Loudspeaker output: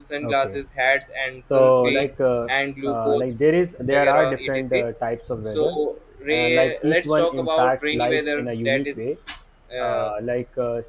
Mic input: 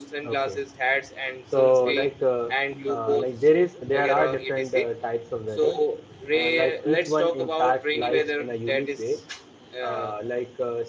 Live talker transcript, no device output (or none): none